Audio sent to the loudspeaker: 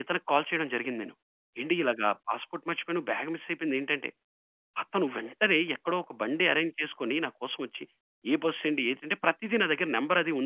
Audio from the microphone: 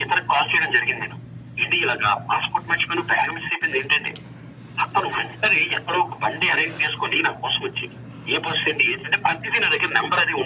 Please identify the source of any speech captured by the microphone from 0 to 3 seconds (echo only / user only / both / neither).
echo only